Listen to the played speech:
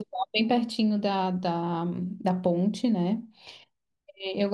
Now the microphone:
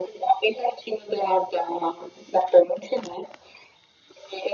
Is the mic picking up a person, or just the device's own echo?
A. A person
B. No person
B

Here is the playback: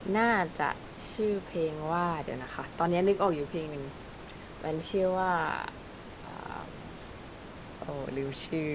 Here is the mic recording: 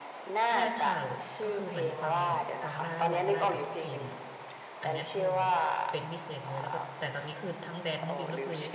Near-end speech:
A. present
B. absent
A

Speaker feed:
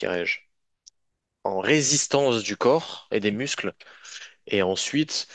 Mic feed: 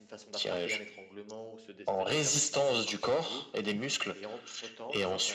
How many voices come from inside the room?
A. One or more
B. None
A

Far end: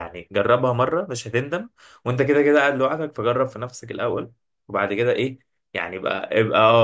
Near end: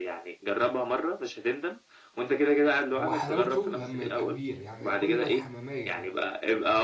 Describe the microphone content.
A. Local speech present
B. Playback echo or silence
A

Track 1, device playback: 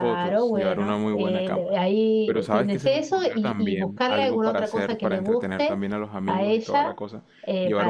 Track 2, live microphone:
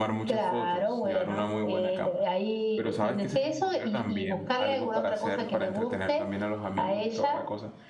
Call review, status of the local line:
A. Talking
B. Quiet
B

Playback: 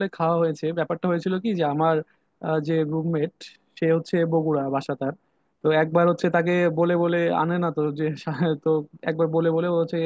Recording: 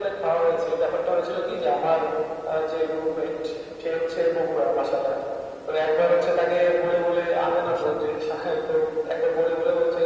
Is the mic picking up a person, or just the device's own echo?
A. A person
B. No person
A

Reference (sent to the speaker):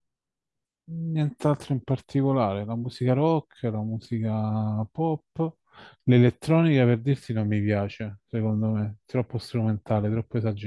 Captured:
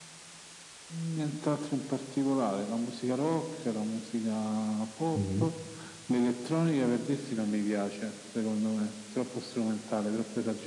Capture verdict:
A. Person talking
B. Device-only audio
A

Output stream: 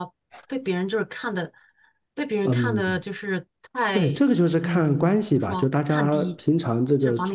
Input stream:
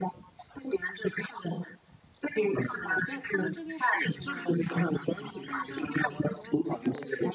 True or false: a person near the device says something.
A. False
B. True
B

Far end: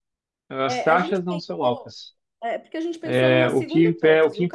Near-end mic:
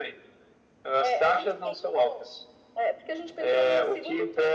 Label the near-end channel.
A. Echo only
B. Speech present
A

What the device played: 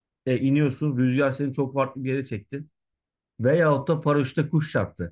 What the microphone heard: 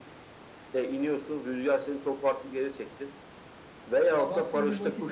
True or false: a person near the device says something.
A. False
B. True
B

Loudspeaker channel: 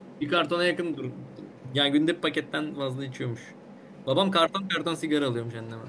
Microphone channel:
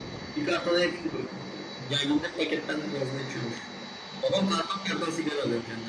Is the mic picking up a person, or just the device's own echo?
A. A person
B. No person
B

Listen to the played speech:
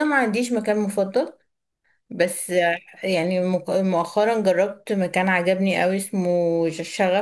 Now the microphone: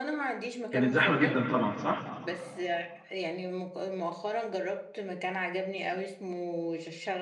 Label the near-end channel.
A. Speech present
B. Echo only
A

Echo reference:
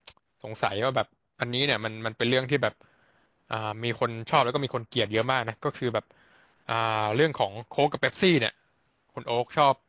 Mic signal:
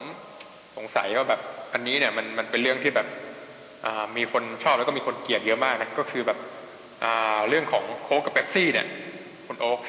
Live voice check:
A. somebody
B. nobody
B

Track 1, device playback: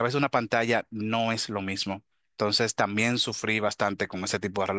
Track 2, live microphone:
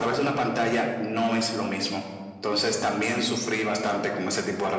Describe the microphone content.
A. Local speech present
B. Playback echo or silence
B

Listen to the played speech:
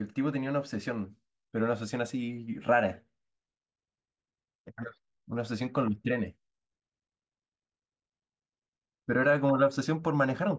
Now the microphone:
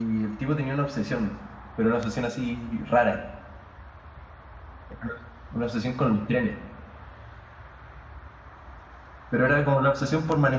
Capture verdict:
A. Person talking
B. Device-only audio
B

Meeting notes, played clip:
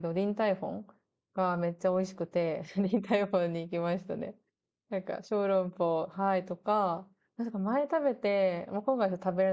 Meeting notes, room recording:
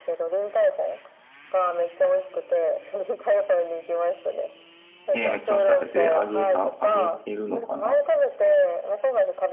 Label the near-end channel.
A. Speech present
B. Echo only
A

